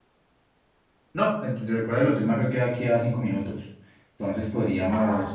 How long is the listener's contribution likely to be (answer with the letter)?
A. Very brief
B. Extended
A